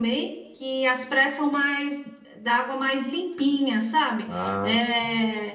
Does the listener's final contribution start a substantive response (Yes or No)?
No